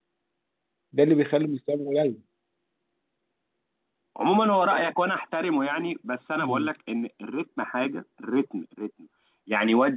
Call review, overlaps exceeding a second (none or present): none